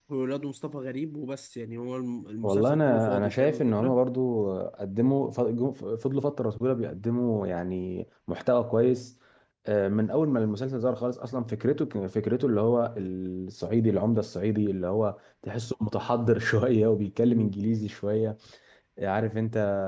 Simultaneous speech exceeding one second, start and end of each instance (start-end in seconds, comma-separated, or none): 2.4-4.0